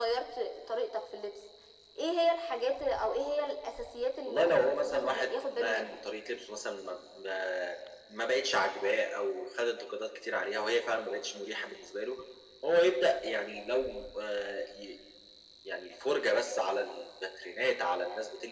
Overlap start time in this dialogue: 4.3 s

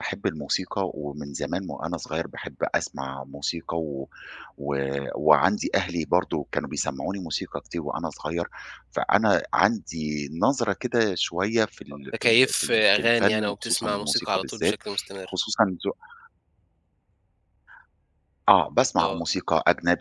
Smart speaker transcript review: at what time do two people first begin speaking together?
12.1 s

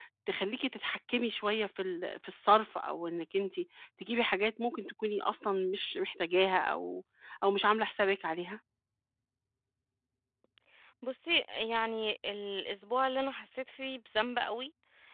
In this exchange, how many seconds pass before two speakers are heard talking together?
none

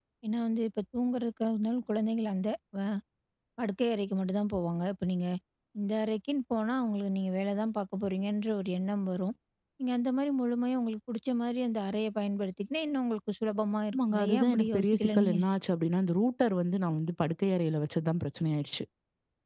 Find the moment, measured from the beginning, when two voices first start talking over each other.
13.9 s

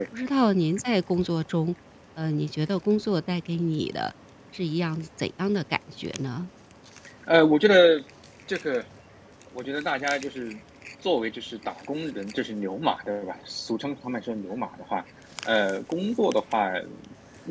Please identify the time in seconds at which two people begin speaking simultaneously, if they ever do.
none

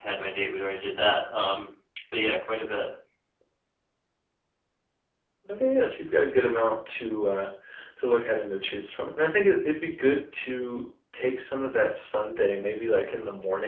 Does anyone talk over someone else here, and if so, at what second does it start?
none

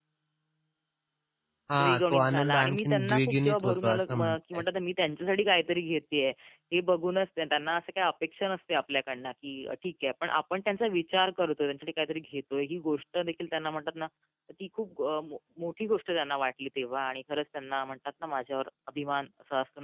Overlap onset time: 1.8 s

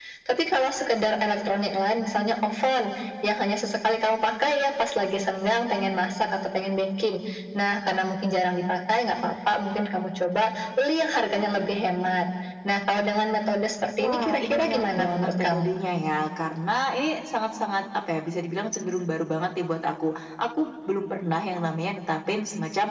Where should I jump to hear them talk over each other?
14.0 s

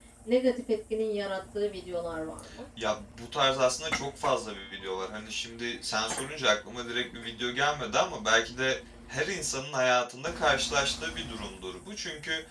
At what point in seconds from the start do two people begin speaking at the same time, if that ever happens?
none

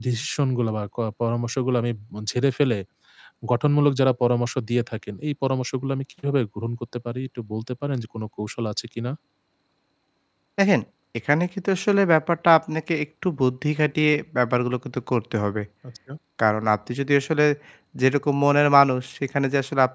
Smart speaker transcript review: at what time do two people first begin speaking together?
none

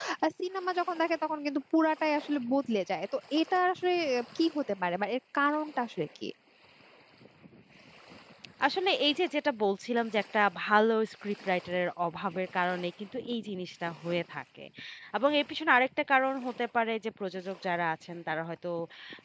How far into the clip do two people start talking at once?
none

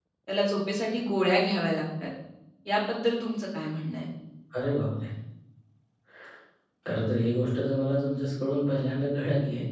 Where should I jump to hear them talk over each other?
none

